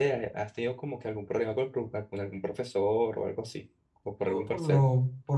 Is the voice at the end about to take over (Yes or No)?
Yes